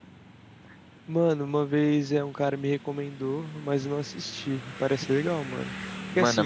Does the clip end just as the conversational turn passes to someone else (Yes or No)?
No